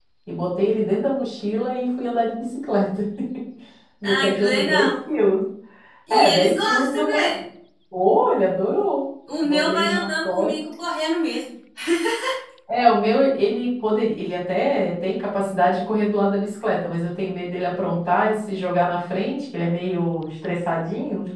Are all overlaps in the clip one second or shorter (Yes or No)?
No